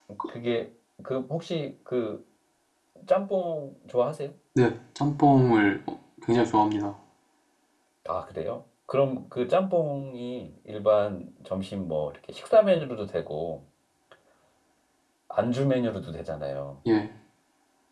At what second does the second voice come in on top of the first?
none

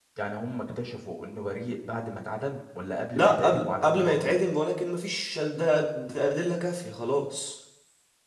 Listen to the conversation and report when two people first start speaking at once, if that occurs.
3.1 s

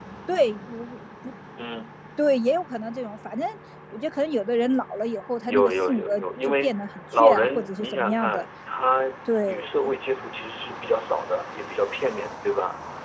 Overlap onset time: 5.5 s

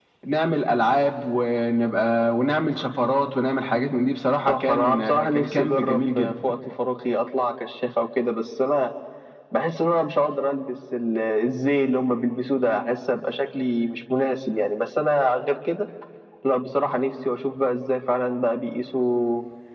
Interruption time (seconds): 4.5 s

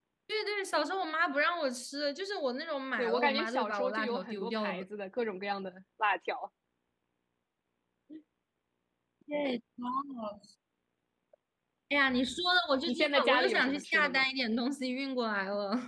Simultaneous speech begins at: 3.0 s

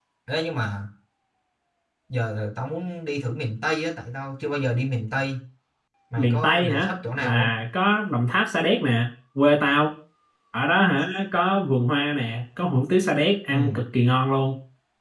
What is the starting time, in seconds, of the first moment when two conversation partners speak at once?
6.2 s

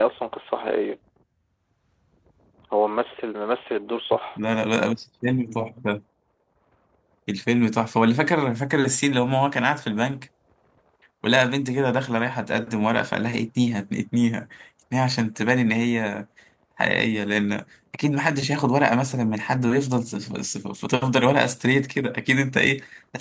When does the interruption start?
none

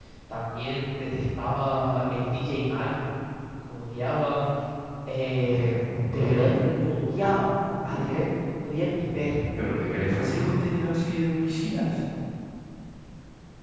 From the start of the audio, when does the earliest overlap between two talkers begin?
none

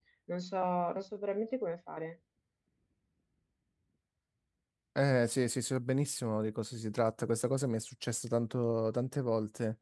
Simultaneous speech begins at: none

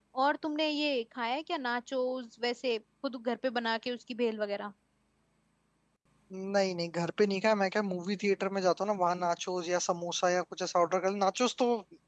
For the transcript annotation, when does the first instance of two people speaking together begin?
none

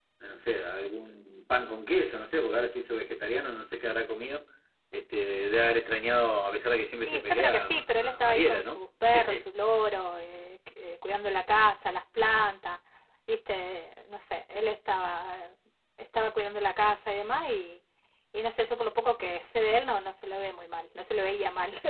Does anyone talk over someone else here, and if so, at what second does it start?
7.1 s

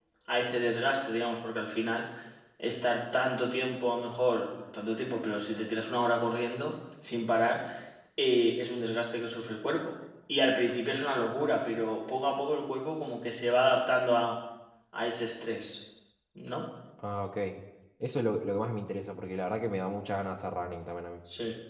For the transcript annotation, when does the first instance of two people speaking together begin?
none

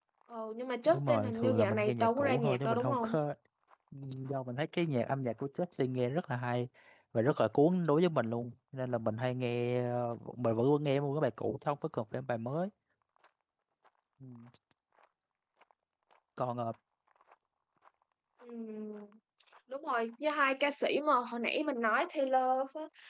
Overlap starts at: 0.8 s

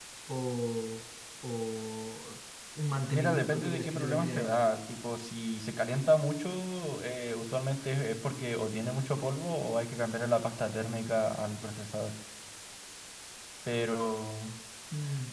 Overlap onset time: 3.1 s

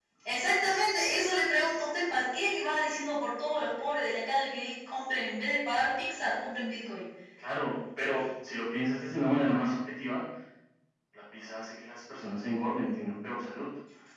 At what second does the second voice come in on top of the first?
none

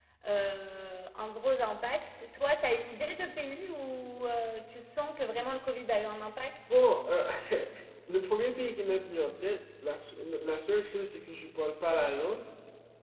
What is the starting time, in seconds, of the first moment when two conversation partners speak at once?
none

